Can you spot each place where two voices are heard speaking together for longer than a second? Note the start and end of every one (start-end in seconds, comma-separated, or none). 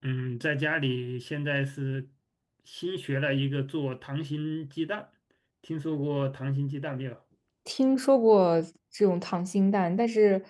none